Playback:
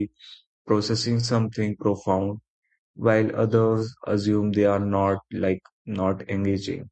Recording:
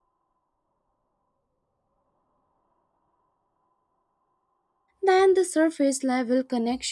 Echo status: none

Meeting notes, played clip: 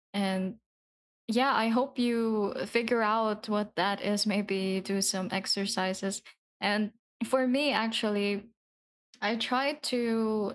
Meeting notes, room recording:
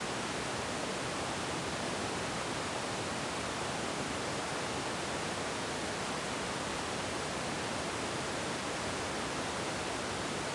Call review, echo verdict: none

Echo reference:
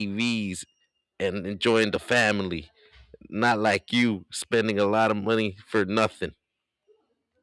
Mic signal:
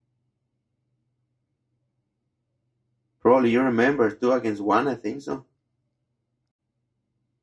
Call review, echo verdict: none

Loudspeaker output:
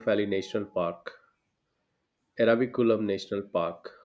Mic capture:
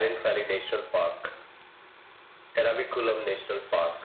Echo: present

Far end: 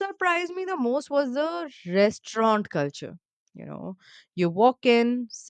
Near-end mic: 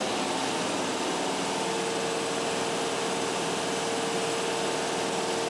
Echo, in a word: none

